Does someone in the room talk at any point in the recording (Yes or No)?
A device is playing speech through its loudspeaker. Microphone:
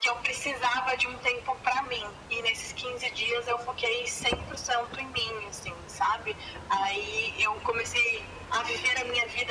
No